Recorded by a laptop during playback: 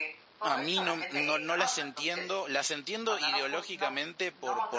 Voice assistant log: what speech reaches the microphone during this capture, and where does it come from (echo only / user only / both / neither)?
both